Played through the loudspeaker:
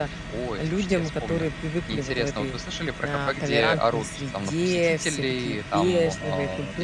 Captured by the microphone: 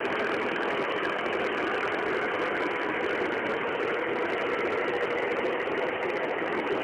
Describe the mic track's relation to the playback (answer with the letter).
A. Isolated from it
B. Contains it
A